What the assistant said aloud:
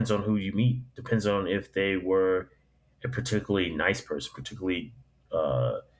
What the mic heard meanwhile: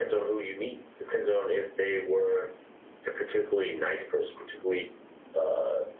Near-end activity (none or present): none